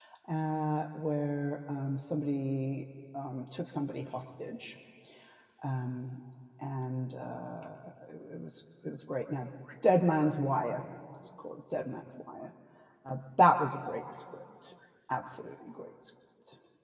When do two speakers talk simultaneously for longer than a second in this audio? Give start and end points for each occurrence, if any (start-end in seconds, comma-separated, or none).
none